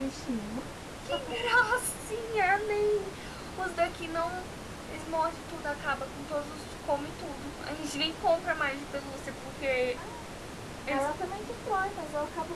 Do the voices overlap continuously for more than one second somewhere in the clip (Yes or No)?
No